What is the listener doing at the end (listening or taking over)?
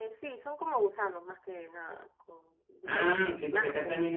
taking over